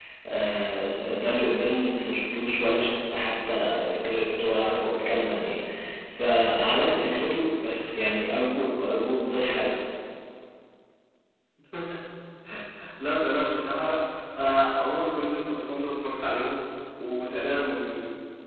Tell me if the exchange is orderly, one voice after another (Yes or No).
Yes